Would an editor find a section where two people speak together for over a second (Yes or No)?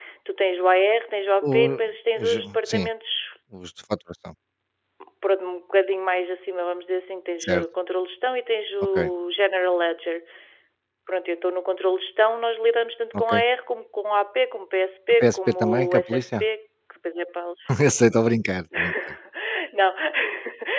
Yes